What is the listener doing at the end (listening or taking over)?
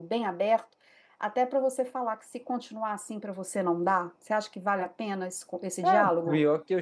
taking over